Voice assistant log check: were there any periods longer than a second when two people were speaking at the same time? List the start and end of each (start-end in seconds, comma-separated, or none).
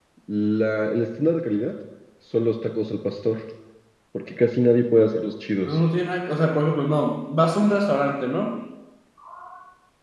none